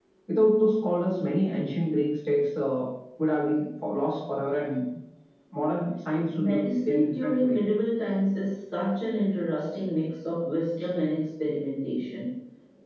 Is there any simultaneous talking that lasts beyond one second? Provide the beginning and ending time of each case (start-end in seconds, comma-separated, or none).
6.4-7.6